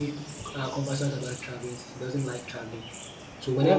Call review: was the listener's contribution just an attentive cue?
Yes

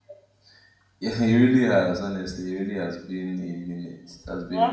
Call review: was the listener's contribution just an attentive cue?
No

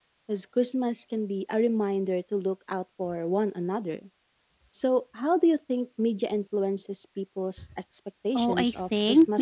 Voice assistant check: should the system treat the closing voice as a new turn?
Yes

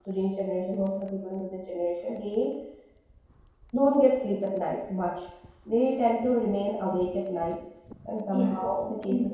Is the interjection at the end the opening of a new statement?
Yes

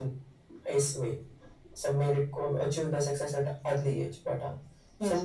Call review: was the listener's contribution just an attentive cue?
No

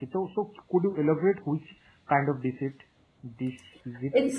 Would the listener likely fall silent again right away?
No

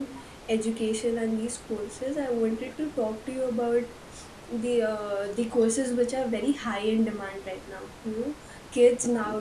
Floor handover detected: No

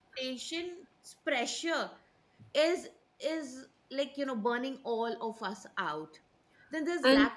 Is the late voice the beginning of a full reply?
Yes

